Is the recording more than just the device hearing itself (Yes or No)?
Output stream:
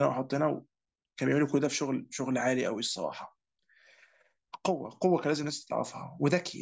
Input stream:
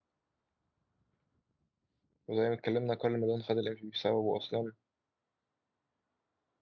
Yes